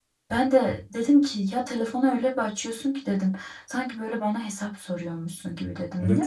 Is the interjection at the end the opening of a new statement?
Yes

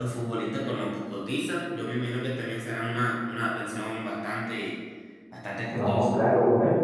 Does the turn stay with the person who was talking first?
No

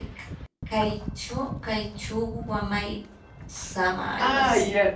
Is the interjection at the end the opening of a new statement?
Yes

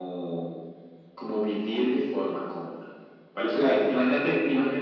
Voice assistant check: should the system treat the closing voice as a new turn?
No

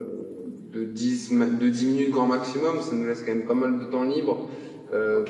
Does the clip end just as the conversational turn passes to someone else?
No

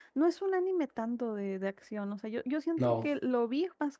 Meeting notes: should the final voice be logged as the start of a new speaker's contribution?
No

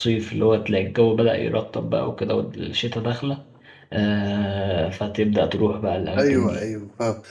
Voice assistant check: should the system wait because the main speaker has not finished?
No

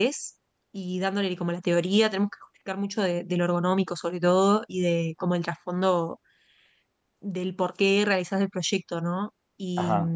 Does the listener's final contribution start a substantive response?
No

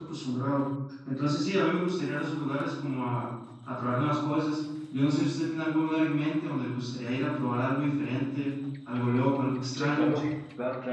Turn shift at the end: Yes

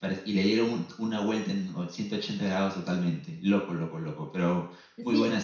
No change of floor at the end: No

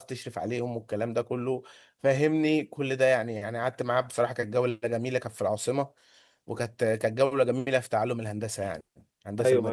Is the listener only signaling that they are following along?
No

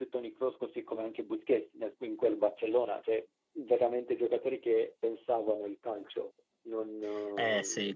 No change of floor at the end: No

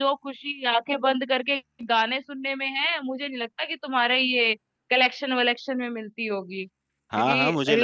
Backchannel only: No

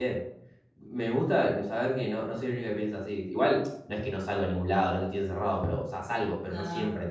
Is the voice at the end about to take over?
No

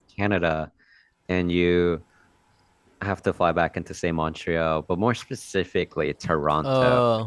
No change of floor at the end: Yes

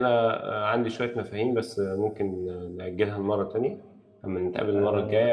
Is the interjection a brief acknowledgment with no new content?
Yes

